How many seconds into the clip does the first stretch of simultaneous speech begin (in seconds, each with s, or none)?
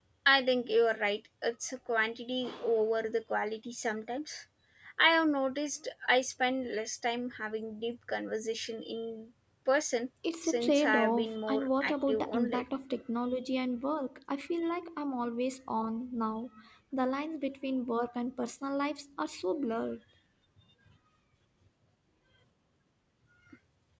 10.2 s